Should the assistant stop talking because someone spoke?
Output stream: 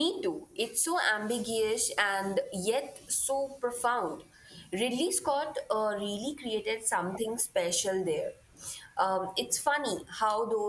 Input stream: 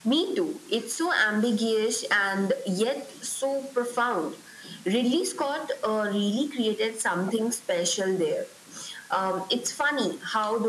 No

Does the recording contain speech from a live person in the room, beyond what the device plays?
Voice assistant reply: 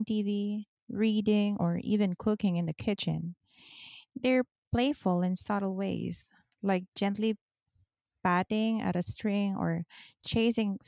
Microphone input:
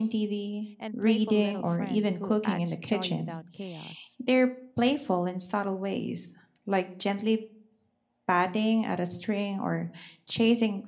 Yes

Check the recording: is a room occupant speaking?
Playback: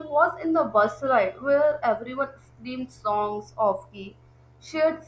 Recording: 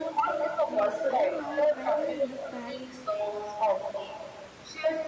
Yes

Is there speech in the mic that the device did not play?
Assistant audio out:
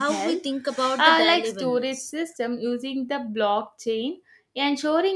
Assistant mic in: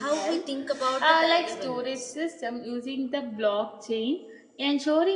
No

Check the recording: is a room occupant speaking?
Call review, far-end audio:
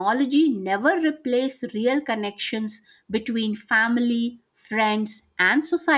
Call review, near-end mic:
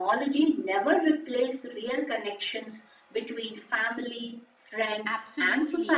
Yes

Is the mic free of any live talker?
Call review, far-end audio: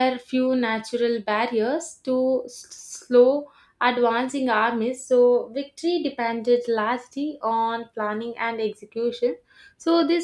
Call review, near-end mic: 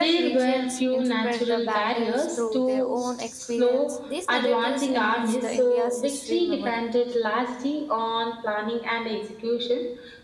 No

